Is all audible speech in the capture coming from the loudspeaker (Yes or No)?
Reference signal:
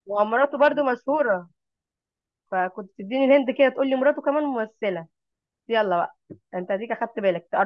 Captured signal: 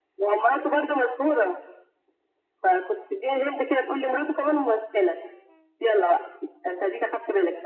Yes